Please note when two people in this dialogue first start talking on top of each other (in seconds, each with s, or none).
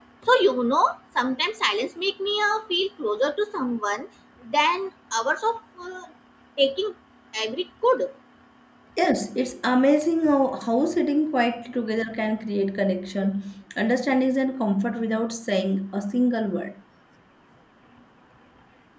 none